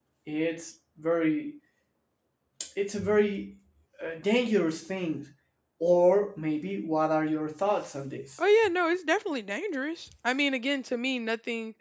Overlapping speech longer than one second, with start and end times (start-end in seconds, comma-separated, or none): none